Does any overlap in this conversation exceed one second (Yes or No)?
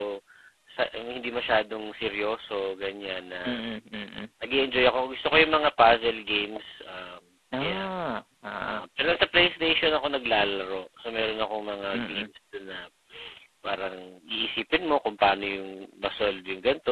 No